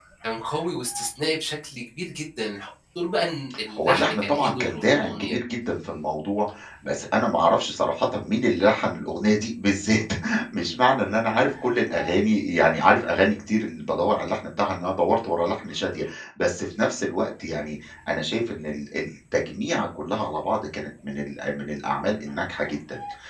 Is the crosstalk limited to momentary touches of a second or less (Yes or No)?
No